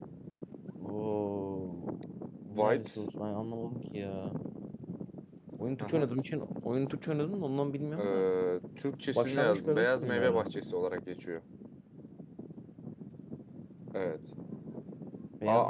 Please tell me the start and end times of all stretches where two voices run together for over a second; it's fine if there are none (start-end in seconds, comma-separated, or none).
9.1-10.4